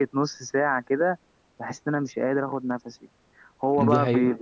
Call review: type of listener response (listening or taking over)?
listening